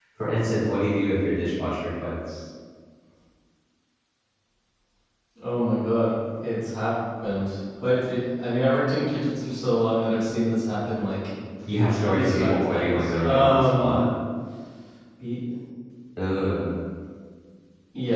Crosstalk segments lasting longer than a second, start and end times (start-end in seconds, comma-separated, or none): 12.0-13.9